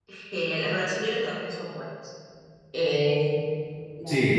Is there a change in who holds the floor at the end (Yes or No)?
No